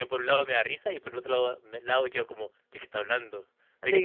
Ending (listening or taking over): taking over